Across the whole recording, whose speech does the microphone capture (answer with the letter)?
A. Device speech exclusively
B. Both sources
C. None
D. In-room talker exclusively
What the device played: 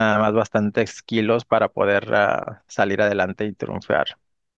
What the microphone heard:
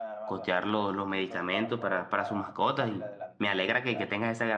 B